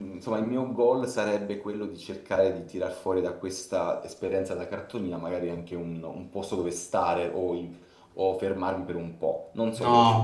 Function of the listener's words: taking over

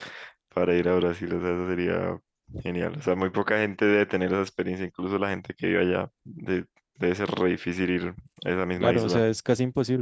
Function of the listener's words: taking over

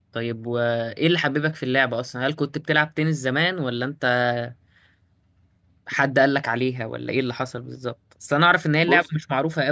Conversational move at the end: listening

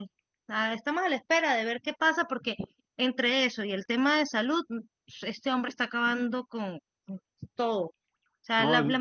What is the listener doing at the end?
listening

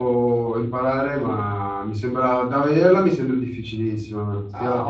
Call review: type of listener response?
taking over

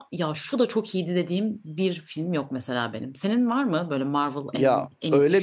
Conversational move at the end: taking over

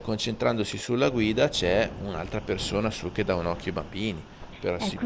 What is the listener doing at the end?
taking over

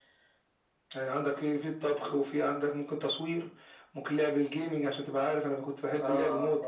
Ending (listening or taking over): taking over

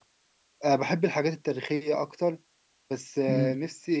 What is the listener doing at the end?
listening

